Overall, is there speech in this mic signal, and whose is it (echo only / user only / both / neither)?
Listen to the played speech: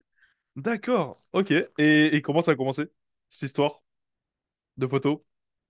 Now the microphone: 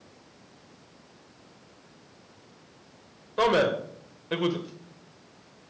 user only